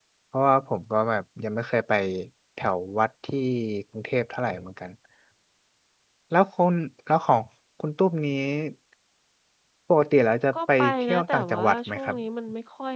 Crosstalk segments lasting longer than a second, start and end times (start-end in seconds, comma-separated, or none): 10.5-12.2